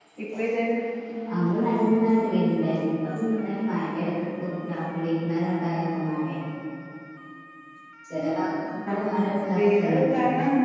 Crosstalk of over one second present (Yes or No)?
Yes